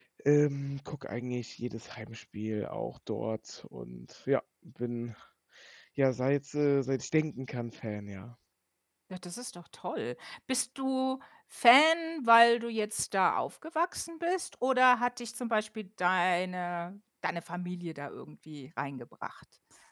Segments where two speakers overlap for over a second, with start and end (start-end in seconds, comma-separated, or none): none